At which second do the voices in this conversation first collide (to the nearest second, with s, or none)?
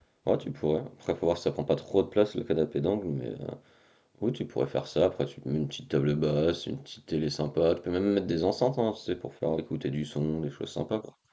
none